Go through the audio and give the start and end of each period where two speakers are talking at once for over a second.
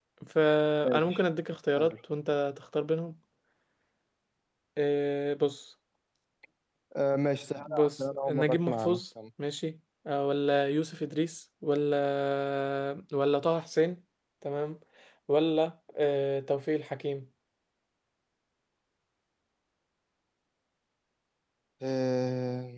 7.6-9.0

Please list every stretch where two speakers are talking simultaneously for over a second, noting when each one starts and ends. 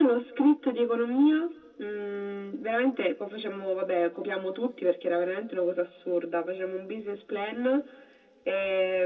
none

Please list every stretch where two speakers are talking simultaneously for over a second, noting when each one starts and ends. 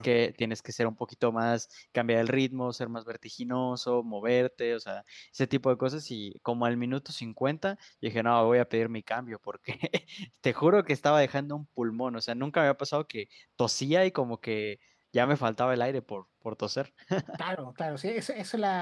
none

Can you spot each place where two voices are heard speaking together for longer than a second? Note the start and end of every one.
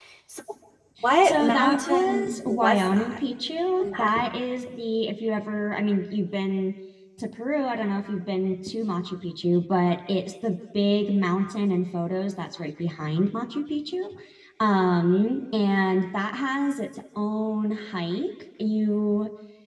1.2-3.2

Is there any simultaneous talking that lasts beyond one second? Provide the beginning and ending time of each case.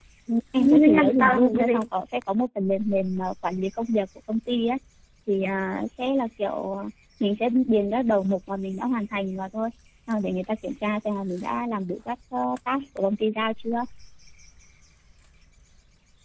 0.5-1.9

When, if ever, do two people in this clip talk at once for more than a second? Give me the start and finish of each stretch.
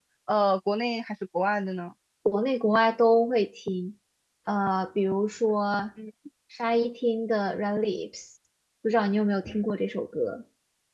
none

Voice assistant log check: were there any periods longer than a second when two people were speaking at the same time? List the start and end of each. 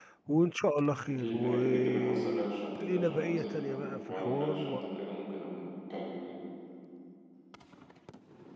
1.1-4.5

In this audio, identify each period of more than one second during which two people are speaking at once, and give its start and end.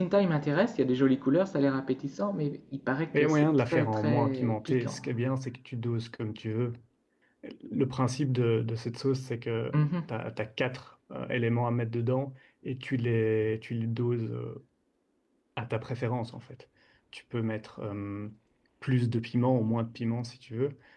3.1-5.0

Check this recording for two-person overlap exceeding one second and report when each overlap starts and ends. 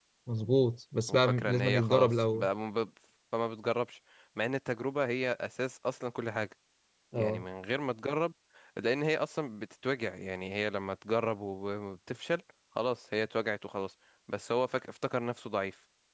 1.1-2.5

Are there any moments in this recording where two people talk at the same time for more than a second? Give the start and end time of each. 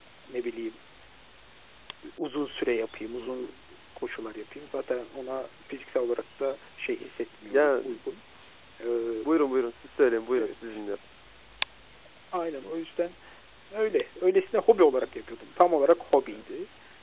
none

